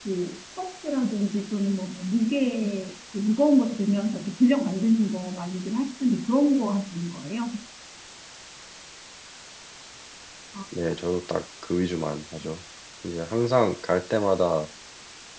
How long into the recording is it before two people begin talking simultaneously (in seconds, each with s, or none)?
none